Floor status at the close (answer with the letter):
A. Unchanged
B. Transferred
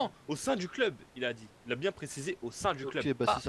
B